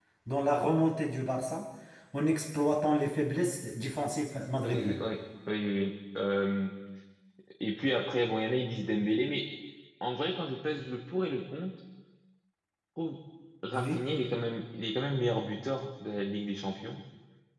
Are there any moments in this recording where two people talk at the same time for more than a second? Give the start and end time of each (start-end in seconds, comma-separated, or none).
none